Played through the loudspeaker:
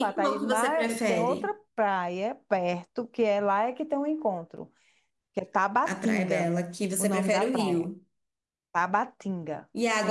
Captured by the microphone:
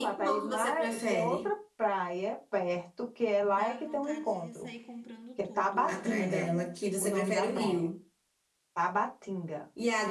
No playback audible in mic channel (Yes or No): No